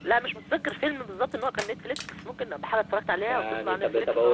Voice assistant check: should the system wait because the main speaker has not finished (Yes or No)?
No